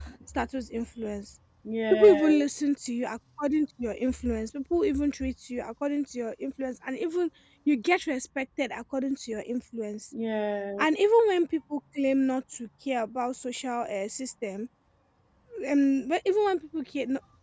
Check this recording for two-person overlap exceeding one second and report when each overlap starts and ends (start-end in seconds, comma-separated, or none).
none